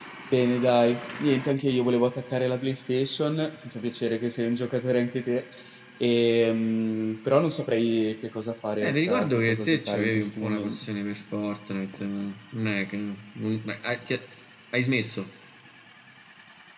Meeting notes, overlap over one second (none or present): present